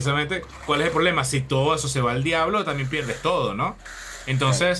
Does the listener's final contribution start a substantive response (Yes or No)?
No